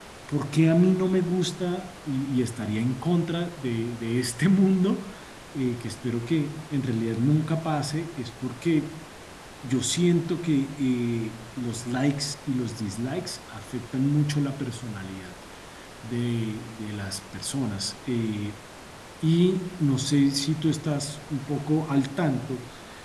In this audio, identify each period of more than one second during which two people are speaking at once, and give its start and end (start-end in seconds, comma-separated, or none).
none